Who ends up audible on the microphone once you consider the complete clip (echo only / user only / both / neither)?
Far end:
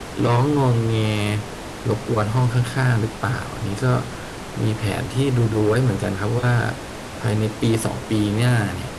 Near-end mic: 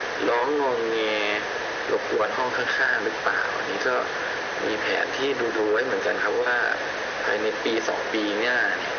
echo only